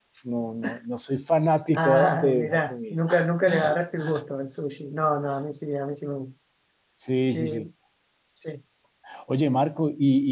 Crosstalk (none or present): present